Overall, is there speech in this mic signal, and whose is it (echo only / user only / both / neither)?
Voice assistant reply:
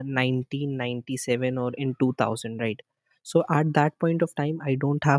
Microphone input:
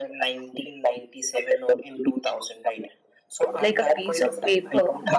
both